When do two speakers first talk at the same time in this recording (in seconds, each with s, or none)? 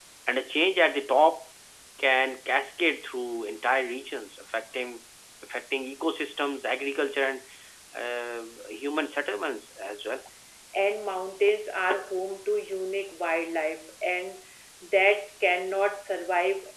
none